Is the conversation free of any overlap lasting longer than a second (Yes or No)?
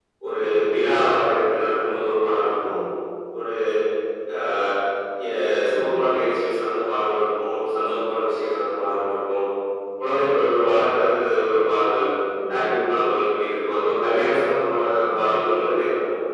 Yes